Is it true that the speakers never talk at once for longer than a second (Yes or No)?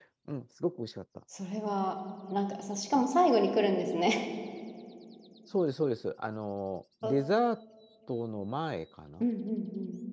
Yes